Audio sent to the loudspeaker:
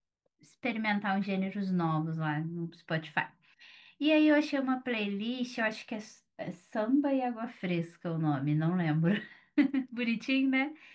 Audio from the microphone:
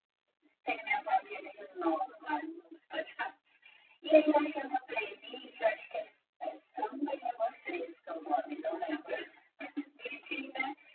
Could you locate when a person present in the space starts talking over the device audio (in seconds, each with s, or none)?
none